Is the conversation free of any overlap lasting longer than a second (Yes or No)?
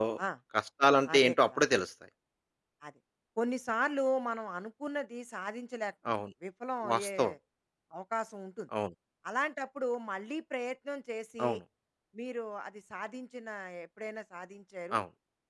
Yes